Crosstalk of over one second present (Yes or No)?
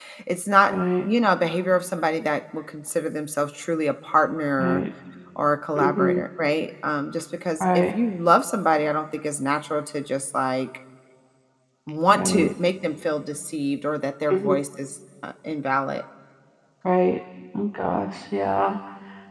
No